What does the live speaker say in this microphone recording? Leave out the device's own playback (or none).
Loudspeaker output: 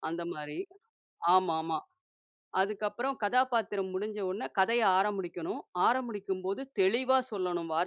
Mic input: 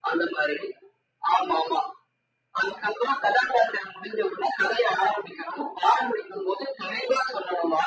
none